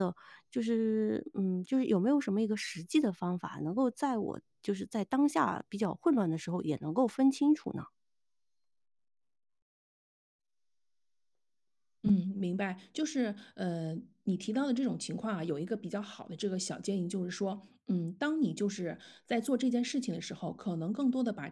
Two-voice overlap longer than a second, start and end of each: none

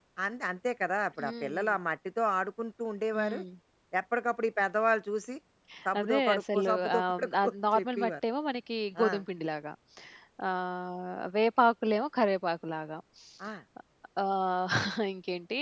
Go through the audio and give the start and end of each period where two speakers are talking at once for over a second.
6.0-8.1

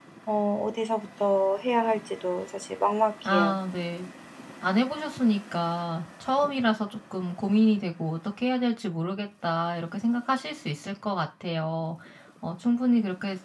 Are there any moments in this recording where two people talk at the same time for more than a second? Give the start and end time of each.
none

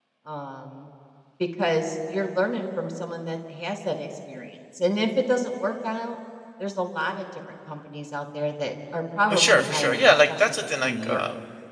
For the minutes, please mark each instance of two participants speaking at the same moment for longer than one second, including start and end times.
9.3-11.2

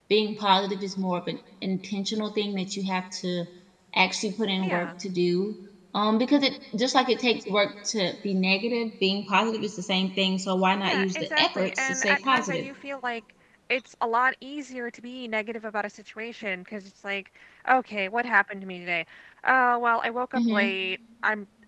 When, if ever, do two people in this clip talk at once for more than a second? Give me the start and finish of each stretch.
10.8-12.7

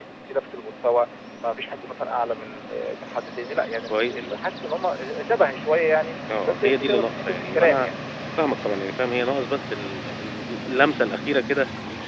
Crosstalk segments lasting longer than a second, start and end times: 6.4-7.9

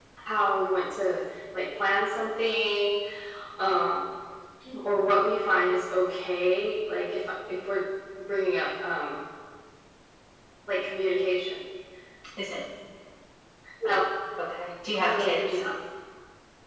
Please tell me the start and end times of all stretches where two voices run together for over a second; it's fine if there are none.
none

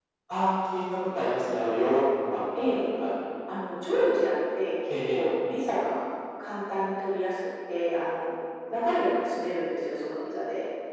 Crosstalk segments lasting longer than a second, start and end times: none

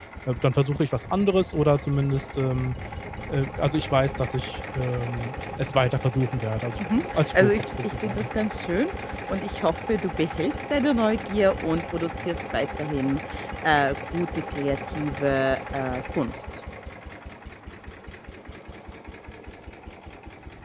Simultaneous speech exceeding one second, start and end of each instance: 6.9-8.3

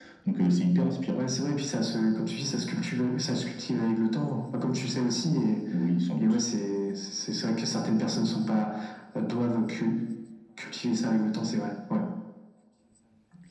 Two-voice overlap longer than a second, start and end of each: none

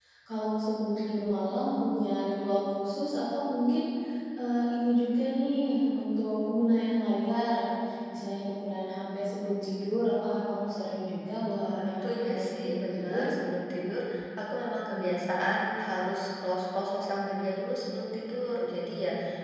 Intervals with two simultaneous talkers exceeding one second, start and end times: 11.5-13.3

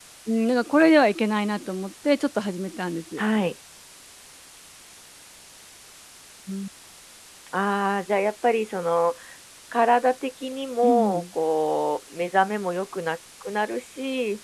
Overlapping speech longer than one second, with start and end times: none

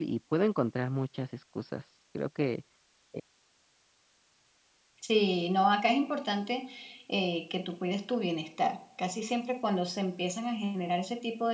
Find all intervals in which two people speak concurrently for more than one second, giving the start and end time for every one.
none

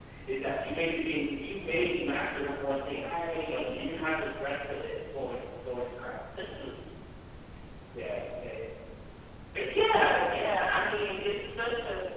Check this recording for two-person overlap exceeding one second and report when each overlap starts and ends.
none

